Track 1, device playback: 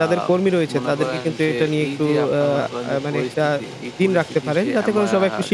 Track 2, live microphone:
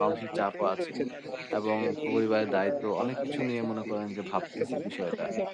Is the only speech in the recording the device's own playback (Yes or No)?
No